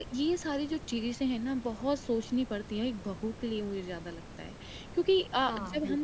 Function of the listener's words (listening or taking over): listening